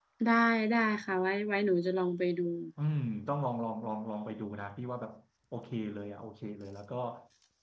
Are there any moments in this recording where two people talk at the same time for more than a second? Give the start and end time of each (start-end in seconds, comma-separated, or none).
none